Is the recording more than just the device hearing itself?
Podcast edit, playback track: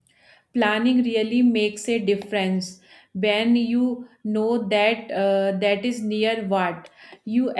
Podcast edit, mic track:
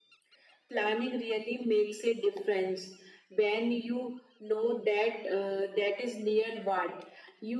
No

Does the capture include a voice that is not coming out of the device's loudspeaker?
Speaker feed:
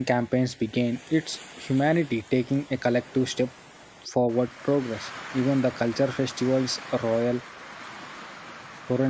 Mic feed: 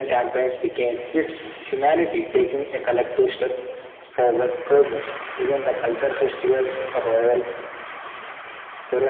No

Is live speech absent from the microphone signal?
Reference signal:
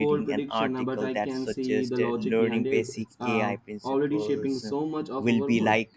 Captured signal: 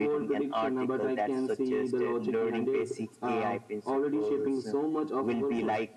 Yes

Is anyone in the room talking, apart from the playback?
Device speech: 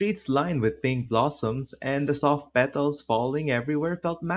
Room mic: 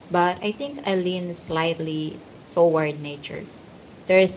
Yes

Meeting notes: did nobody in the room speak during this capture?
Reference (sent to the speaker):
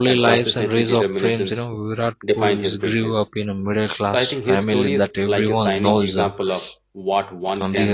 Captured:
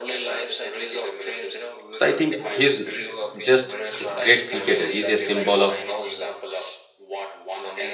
No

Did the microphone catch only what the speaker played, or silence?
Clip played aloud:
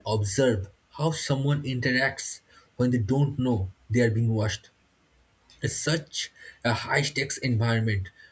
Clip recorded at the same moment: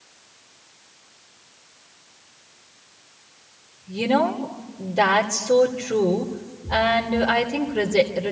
No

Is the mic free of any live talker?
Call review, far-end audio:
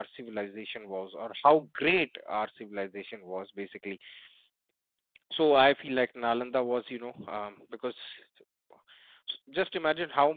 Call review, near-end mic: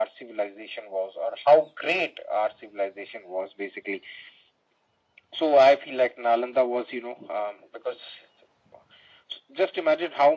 Yes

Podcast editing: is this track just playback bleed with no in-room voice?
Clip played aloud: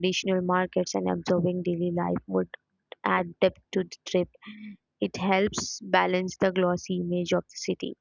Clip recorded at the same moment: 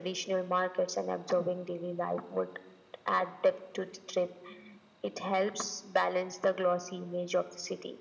Yes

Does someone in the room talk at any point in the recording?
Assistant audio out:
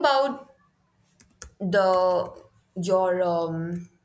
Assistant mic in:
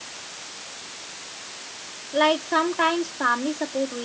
Yes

